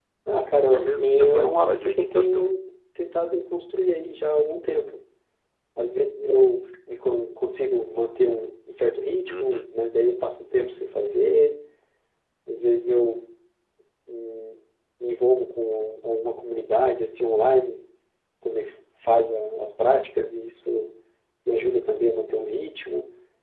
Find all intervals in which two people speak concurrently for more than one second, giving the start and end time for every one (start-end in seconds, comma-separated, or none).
0.7-2.5